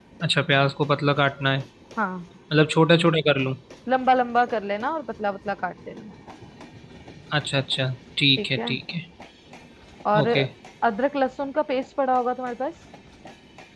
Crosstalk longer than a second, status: none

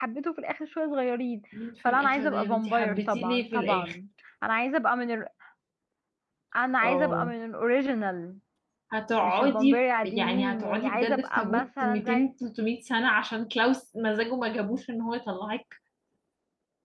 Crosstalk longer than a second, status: present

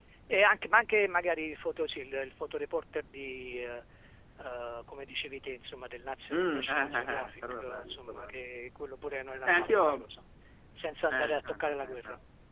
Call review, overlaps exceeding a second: present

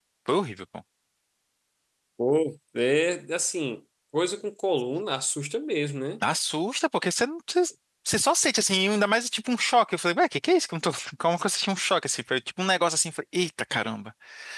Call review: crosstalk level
none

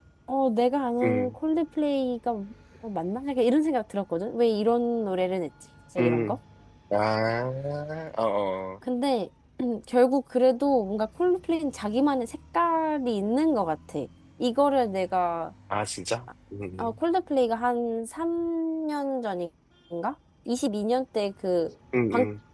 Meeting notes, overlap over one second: none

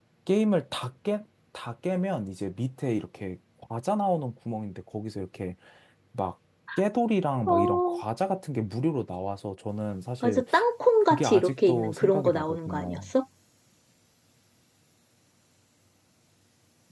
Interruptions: present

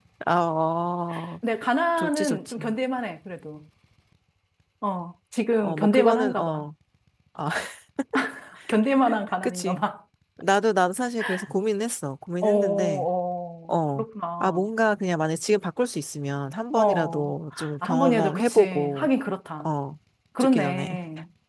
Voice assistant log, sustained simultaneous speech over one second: present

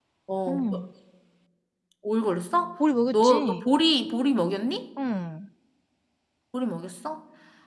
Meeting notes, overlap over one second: none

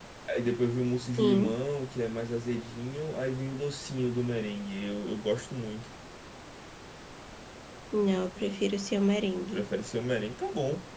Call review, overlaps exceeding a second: none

